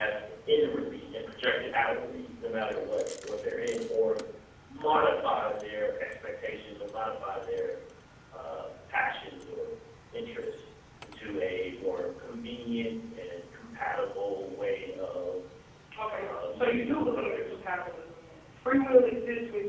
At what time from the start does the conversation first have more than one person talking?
16.1 s

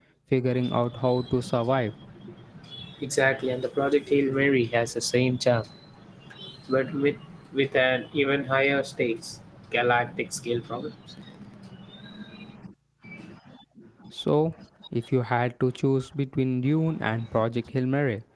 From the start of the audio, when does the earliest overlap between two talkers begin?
none

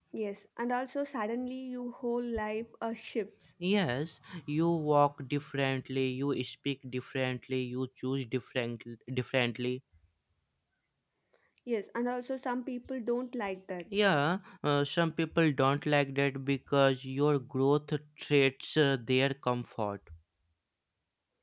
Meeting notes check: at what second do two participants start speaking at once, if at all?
none

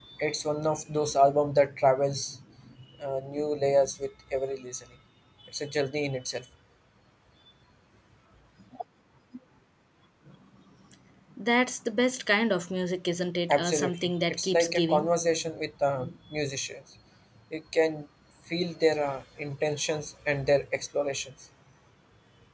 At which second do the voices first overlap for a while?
13.5 s

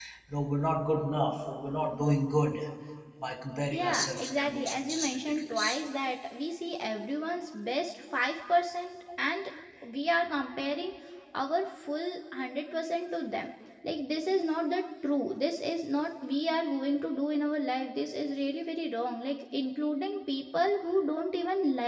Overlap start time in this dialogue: 3.7 s

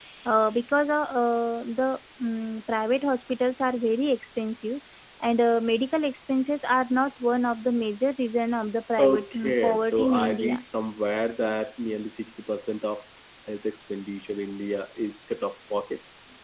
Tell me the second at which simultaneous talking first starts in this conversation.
9.0 s

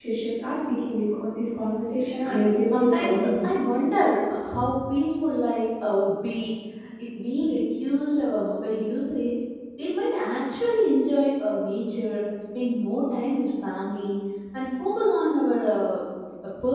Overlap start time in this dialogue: 2.2 s

